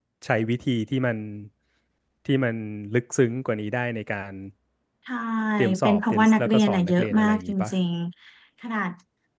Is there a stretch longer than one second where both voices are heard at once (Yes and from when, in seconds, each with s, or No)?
Yes, from 5.8 s